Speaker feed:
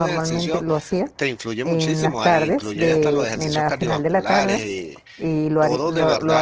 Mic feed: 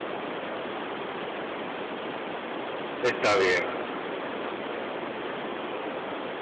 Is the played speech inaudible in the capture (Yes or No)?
Yes